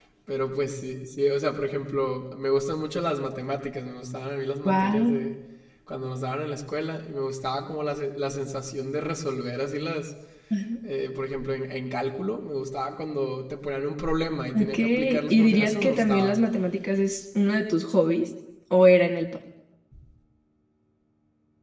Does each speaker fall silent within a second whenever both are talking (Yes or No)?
No